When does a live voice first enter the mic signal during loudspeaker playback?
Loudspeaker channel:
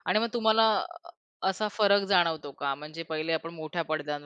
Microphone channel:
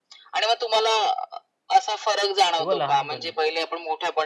2.6 s

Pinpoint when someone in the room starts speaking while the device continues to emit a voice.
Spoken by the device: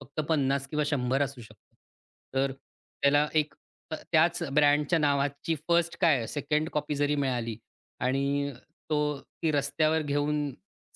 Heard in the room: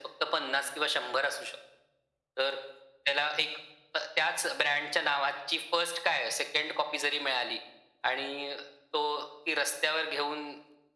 none

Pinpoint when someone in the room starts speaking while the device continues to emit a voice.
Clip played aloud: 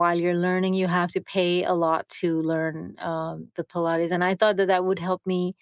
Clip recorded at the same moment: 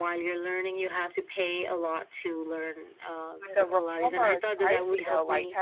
3.4 s

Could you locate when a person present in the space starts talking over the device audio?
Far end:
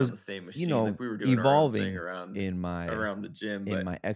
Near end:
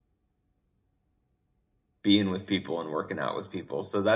2.0 s

